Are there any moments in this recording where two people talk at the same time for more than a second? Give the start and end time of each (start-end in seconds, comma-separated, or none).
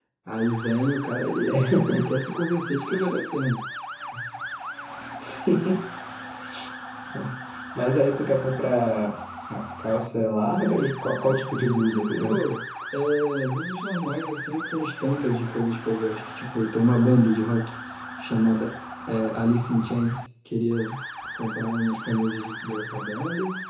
none